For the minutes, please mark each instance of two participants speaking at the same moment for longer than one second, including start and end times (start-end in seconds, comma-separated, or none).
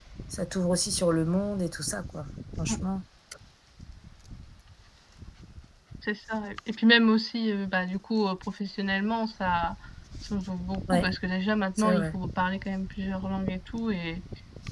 none